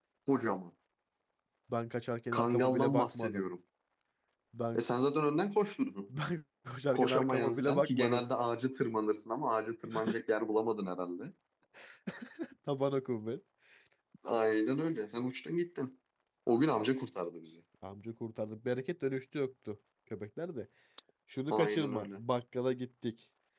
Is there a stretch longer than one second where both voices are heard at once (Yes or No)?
Yes